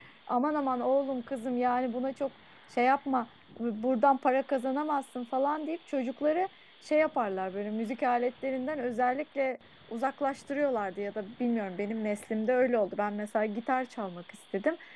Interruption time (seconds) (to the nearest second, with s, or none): none